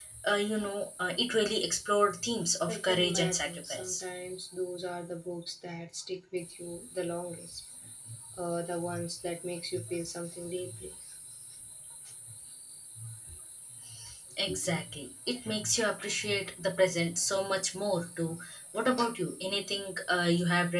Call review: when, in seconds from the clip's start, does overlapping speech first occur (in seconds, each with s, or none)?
2.7 s